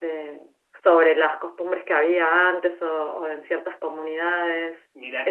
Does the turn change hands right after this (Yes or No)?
Yes